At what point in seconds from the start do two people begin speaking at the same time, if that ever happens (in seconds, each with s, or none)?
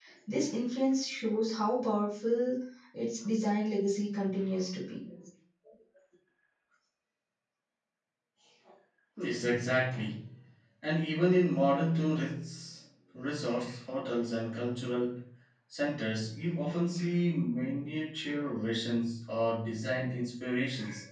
none